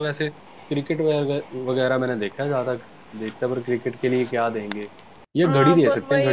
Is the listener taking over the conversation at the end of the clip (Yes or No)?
Yes